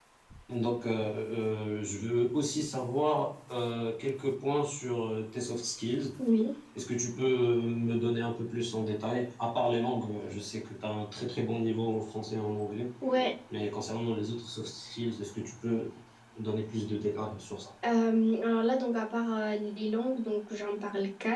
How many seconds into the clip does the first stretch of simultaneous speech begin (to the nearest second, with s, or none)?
none